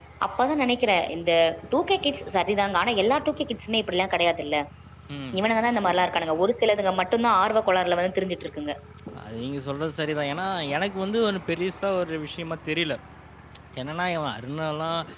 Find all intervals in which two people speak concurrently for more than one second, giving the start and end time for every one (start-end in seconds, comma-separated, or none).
none